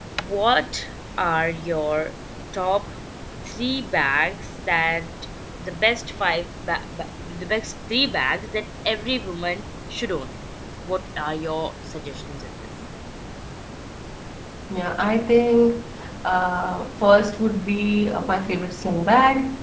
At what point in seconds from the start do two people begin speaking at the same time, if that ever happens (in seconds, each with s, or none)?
none